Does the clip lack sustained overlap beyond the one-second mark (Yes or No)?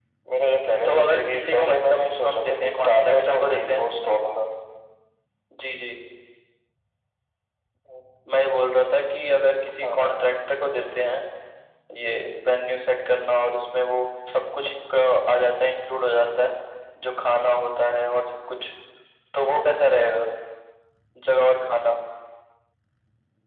No